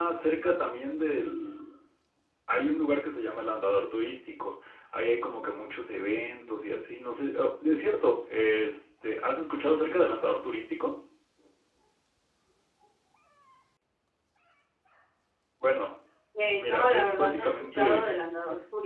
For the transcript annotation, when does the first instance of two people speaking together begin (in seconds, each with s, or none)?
16.5 s